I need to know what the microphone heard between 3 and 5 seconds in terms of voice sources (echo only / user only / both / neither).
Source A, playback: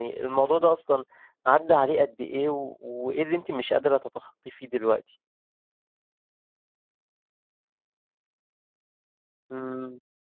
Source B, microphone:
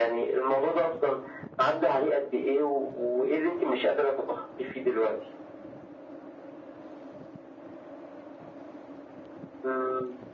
echo only